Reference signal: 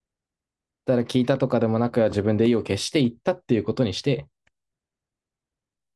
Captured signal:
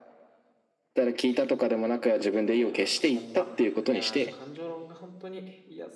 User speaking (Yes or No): Yes